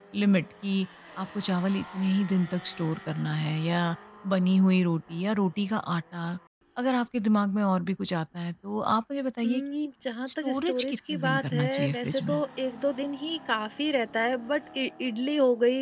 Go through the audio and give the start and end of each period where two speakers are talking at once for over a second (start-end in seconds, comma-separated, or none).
10.4-12.4